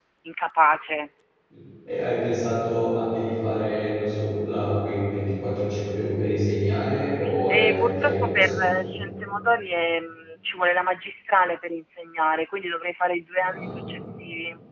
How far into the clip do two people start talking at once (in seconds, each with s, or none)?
7.5 s